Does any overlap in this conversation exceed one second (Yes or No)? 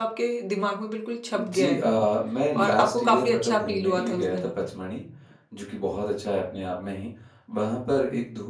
Yes